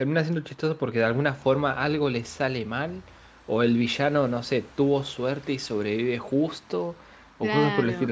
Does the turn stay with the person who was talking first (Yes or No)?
No